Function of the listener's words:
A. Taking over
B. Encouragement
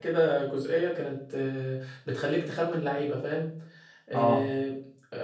B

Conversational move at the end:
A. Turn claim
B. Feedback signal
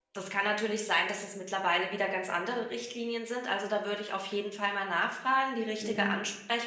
B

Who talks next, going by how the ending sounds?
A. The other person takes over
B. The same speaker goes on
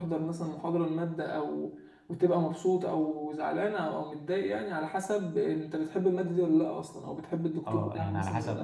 A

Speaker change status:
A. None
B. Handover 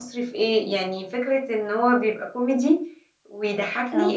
A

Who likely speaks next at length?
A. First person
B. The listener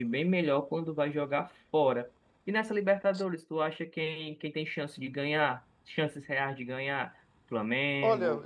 A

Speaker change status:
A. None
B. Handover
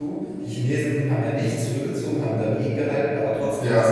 A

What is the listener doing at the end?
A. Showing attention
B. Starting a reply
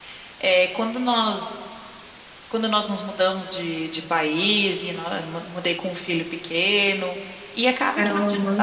A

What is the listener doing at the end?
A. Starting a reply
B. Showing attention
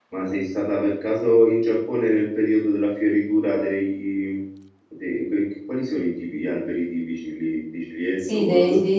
A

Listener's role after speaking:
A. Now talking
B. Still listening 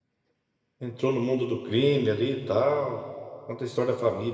B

